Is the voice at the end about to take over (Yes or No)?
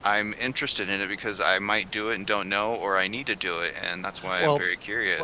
Yes